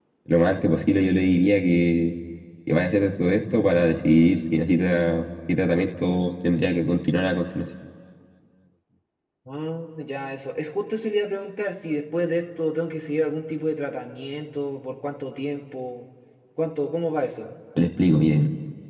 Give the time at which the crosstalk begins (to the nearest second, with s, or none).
none